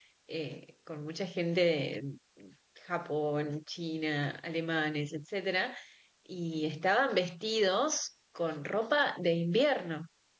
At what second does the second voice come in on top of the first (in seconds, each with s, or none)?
none